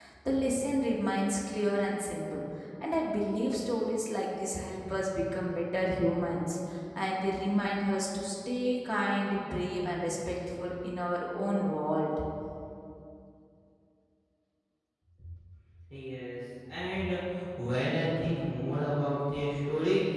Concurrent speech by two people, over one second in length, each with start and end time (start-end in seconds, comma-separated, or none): none